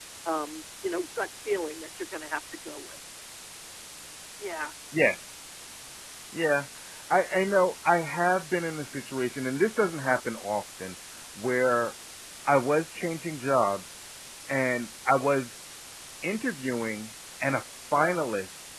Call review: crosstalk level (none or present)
none